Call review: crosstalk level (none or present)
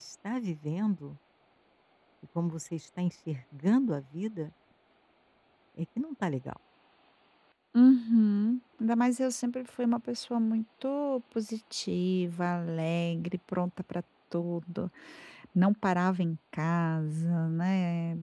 none